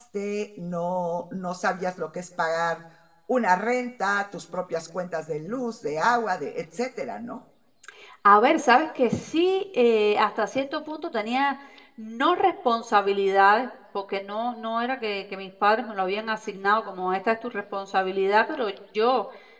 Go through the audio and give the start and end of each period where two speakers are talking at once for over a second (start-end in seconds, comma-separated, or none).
none